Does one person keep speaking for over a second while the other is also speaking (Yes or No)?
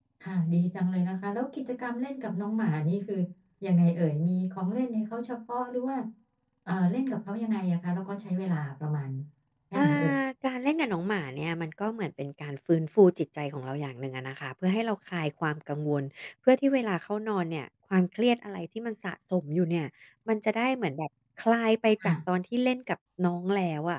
No